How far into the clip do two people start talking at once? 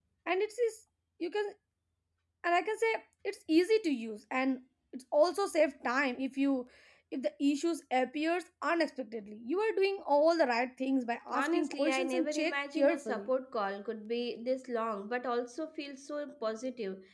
11.3 s

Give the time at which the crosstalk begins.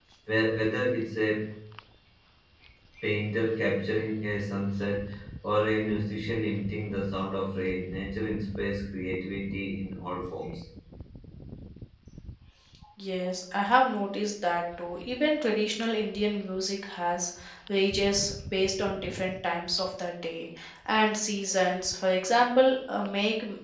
none

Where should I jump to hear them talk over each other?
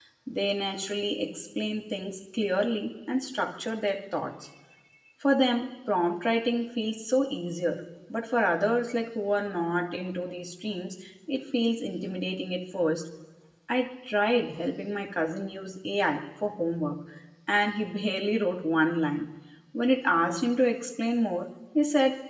none

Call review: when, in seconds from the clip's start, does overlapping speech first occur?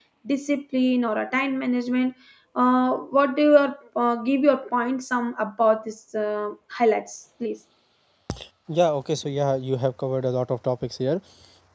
none

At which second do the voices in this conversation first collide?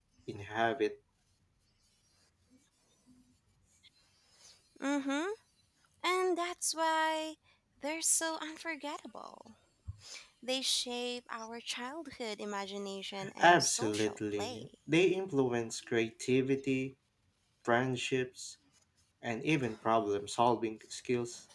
13.2 s

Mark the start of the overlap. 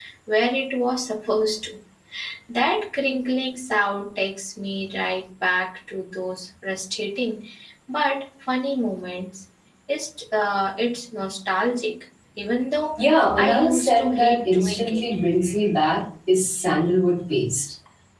13.4 s

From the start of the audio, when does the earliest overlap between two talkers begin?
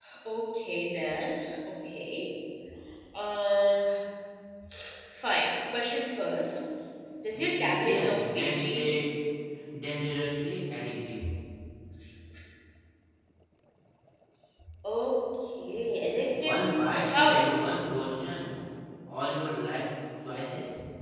7.3 s

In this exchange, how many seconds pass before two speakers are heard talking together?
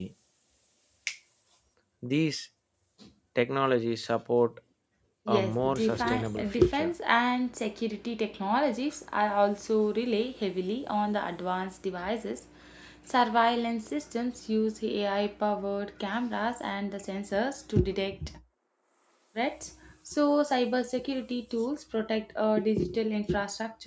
5.3 s

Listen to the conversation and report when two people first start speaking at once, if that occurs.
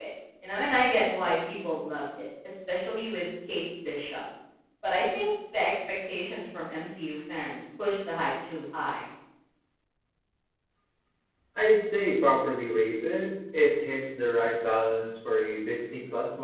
none

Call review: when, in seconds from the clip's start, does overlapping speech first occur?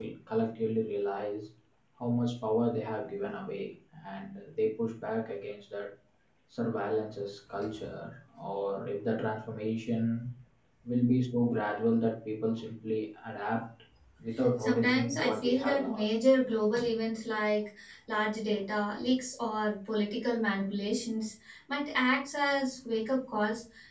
14.6 s

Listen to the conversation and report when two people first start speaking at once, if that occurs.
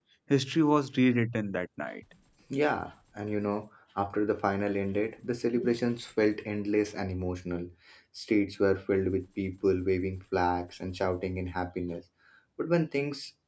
none

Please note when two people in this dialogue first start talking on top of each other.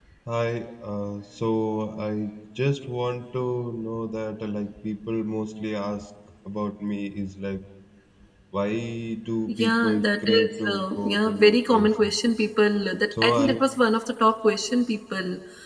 9.5 s

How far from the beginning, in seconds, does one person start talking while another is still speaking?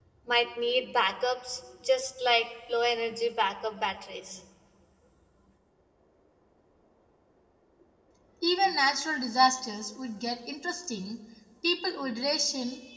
none

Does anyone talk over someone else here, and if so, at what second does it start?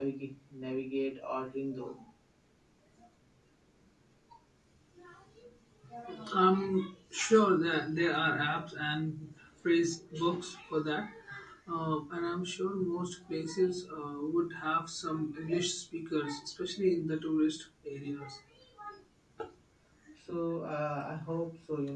none

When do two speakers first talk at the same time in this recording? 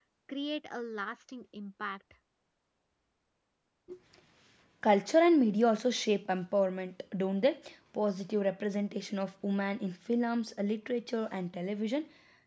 none

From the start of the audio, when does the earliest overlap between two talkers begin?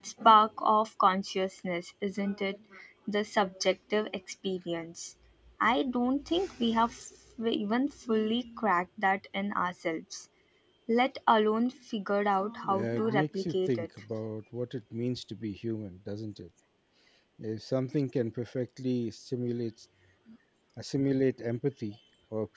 12.6 s

